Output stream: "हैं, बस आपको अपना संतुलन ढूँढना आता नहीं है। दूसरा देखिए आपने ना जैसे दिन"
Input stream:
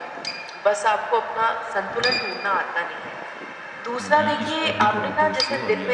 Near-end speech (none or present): present